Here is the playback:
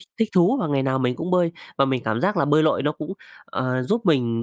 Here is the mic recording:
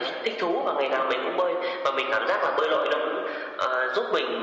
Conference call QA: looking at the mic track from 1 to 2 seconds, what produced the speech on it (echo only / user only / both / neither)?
echo only